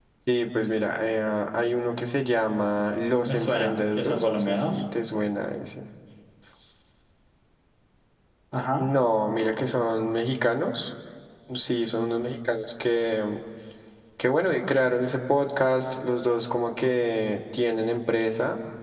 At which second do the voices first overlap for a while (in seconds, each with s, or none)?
3.2 s